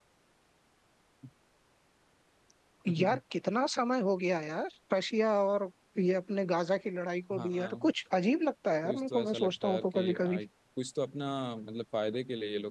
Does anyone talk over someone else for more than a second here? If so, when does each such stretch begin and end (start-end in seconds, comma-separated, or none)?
8.8-10.4